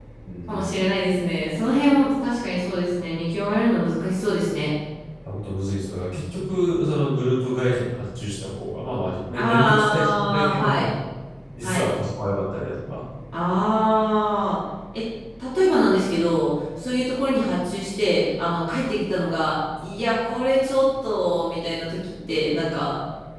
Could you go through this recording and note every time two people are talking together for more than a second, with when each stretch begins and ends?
9.3-10.9

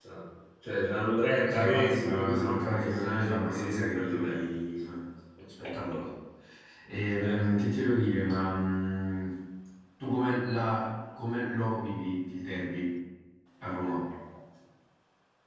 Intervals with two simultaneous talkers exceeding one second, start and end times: 1.5-4.4

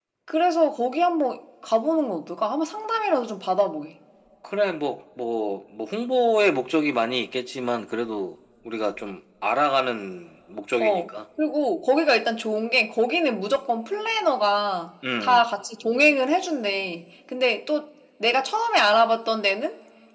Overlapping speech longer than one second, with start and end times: none

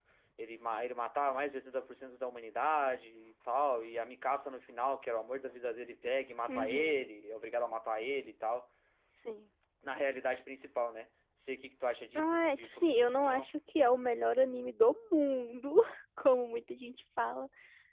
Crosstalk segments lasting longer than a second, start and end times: 12.2-13.5

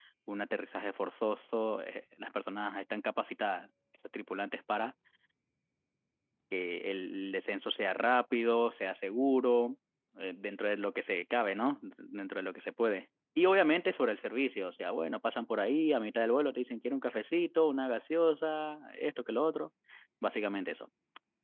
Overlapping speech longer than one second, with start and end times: none

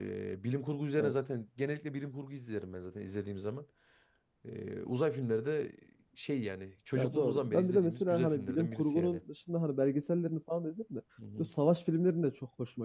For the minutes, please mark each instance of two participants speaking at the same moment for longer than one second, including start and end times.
6.9-9.2

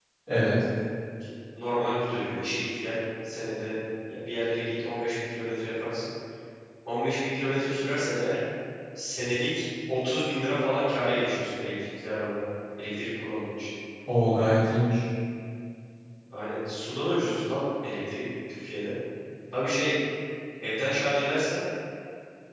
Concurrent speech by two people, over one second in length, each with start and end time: none

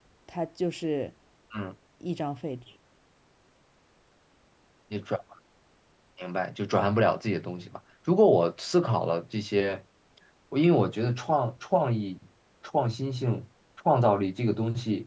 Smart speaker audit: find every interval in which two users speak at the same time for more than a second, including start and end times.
none

